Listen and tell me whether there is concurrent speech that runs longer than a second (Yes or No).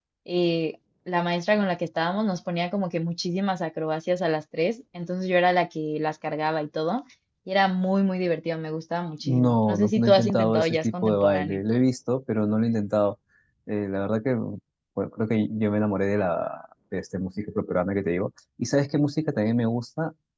Yes